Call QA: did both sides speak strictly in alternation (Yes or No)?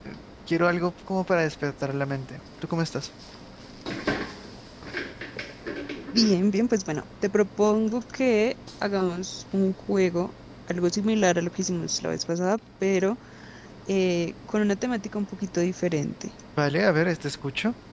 Yes